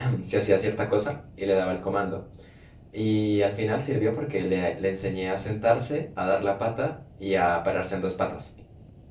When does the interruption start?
none

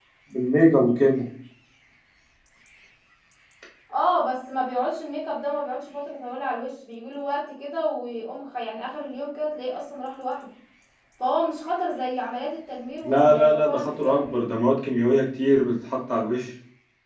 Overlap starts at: 13.0 s

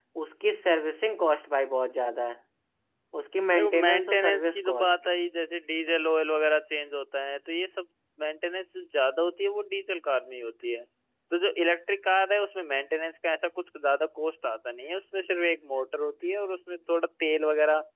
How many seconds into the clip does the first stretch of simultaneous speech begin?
3.5 s

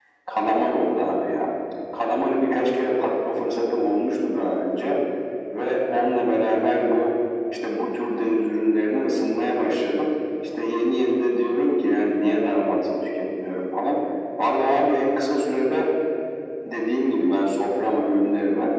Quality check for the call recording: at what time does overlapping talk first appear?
none

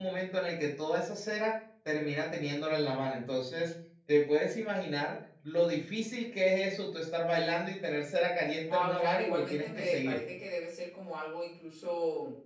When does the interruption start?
8.7 s

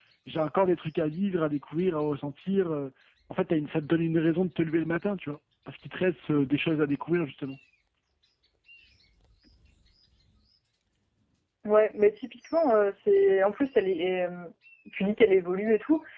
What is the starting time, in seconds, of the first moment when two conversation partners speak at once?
none

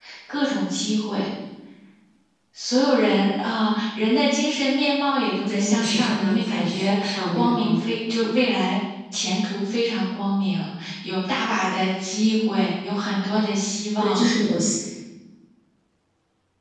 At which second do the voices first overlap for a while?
5.5 s

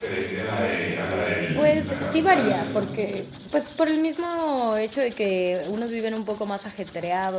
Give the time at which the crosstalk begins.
1.6 s

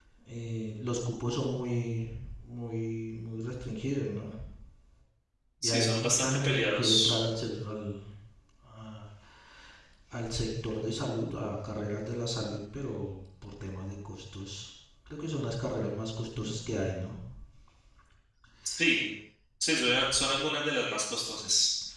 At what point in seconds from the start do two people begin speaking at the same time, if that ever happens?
5.6 s

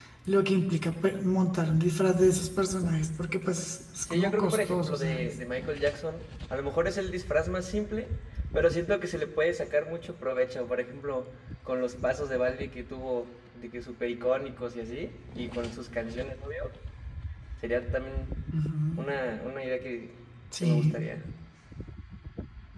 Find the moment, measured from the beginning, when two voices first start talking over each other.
4.1 s

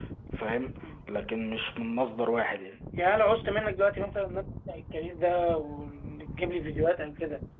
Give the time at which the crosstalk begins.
none

